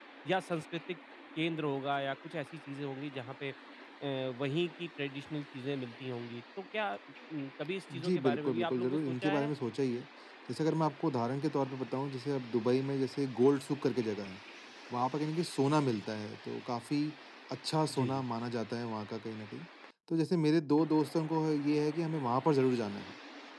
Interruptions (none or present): present